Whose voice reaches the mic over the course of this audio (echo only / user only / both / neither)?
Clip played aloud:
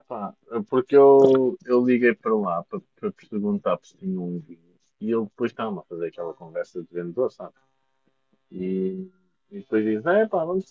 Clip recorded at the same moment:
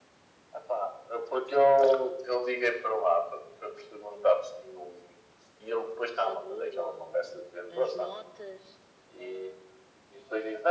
both